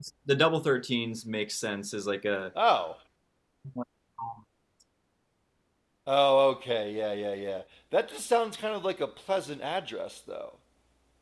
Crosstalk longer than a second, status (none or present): none